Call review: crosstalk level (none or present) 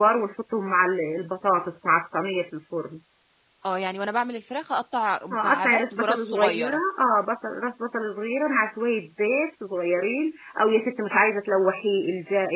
present